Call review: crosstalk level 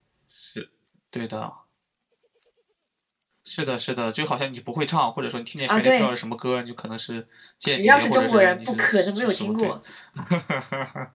present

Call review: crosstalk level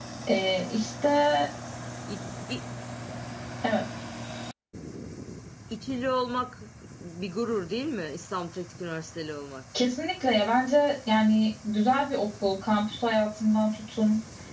none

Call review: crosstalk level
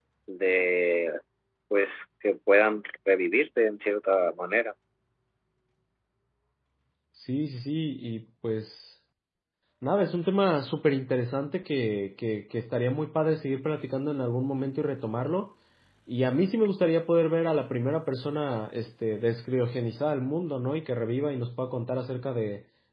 none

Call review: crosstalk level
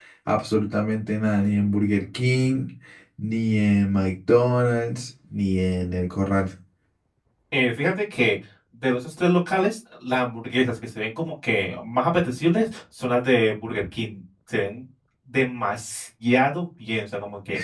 none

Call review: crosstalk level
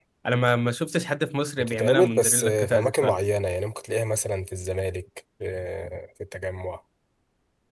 present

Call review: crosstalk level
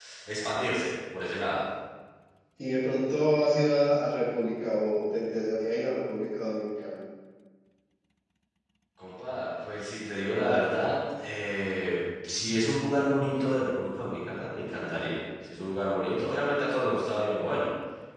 none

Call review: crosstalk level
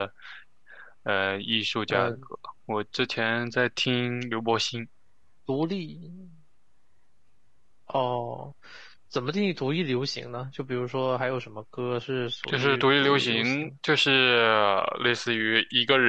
present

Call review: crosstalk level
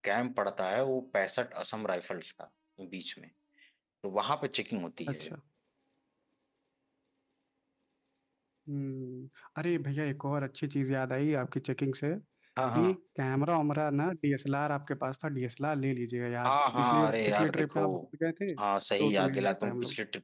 present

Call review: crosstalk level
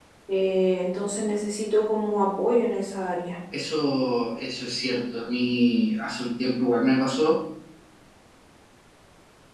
none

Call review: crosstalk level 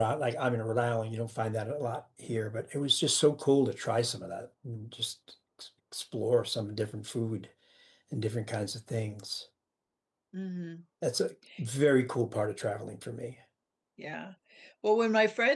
none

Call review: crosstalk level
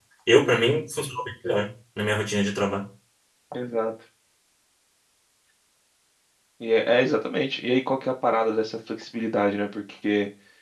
none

